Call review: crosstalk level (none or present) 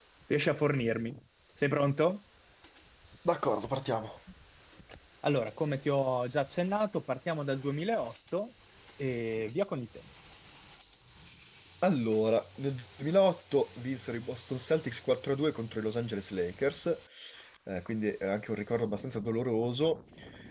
none